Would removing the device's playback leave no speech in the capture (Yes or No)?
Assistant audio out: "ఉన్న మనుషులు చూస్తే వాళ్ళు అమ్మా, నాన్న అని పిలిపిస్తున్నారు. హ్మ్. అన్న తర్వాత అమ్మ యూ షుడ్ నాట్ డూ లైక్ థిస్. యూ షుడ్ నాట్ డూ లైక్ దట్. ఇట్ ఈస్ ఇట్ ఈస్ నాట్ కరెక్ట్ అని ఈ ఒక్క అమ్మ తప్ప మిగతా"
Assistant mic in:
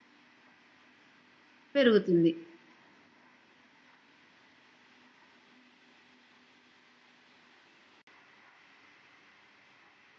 No